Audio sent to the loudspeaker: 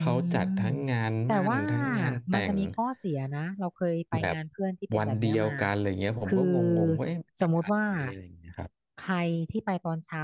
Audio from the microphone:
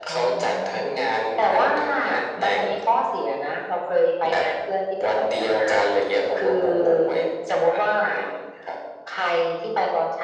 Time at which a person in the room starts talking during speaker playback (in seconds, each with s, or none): none